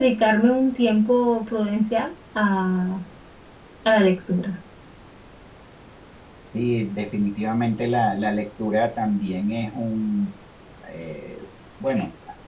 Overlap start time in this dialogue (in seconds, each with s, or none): none